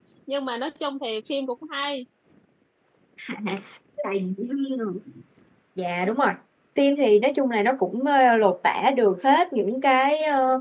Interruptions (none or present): none